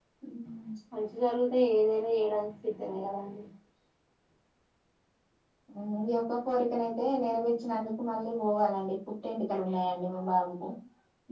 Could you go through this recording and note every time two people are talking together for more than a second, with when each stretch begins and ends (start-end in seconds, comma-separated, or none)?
none